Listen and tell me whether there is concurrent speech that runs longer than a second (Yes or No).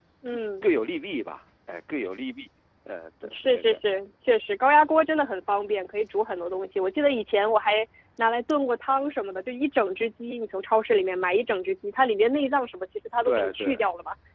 No